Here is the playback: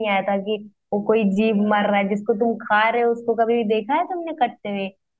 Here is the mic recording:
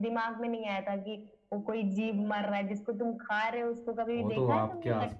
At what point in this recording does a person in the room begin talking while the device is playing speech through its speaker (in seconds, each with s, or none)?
4.2 s